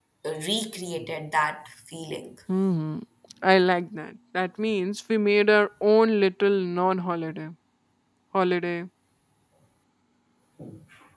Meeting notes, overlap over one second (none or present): none